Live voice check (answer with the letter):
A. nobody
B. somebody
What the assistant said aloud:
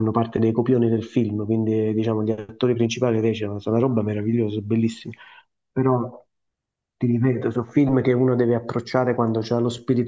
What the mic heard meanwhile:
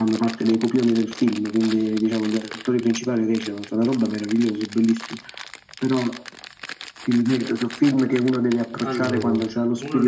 B